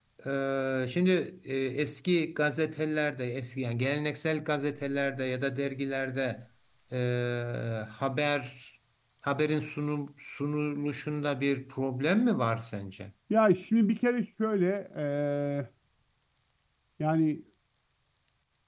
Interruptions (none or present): none